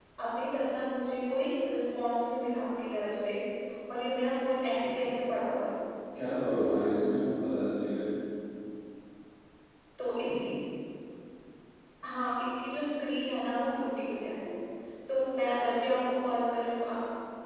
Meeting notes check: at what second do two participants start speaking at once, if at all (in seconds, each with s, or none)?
none